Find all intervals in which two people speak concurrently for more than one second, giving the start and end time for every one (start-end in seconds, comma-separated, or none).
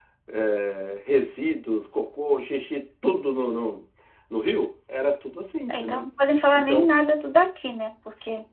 none